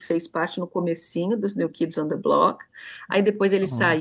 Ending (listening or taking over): listening